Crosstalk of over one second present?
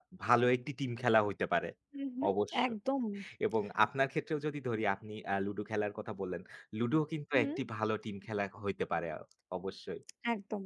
No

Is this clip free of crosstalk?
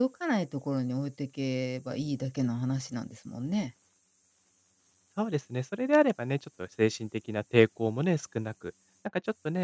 Yes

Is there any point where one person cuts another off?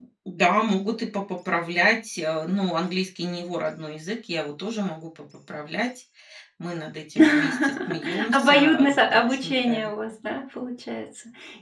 Yes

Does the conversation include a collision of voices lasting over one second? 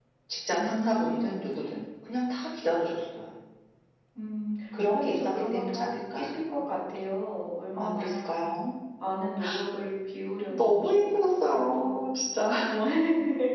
Yes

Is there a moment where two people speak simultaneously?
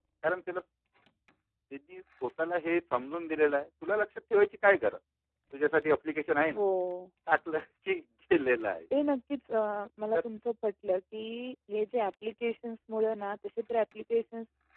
No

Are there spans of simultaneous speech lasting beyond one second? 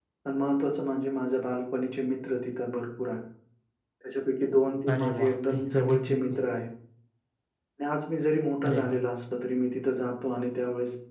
Yes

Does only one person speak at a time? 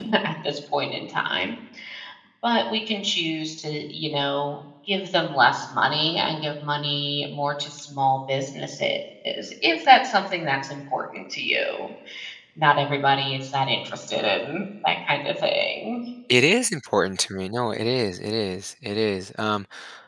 Yes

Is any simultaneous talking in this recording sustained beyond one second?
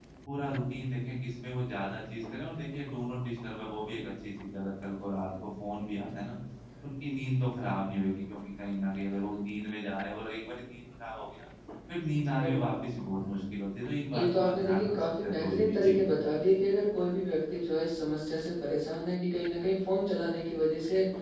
Yes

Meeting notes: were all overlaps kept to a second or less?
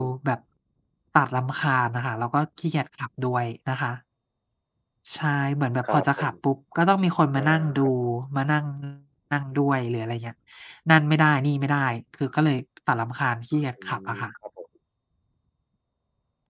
Yes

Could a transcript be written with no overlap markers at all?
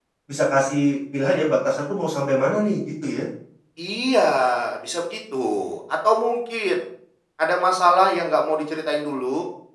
Yes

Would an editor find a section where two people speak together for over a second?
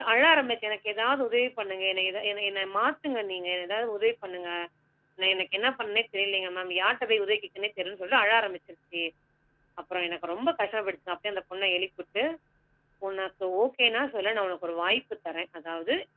No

